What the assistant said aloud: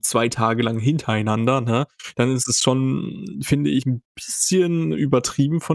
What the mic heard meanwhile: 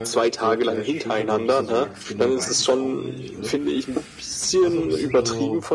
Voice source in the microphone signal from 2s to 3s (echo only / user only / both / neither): both